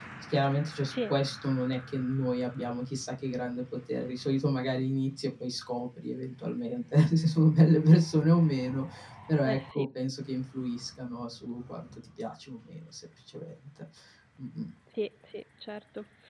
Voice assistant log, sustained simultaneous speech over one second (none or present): none